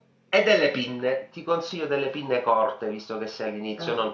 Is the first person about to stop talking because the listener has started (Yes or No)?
No